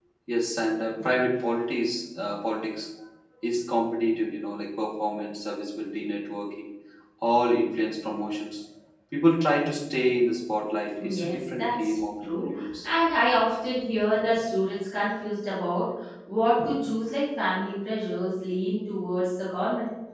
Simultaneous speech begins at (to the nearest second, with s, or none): 11 s